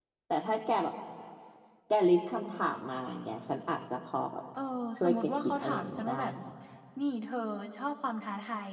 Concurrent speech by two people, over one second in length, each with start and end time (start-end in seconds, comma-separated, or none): 5.0-6.3